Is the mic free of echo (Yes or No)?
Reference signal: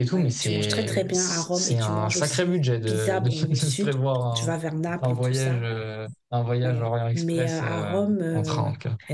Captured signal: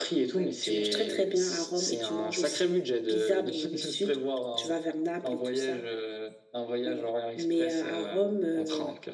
No